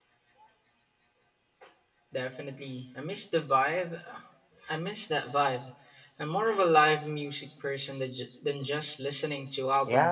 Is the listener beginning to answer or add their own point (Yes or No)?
Yes